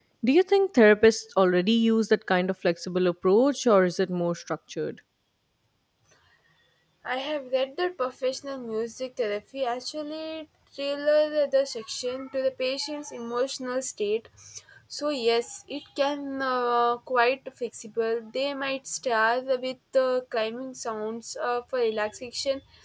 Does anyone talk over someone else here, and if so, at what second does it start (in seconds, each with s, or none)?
none